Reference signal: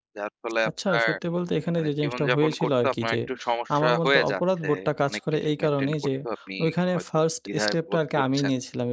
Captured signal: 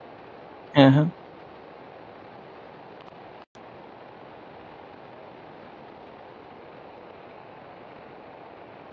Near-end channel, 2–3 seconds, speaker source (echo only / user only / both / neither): neither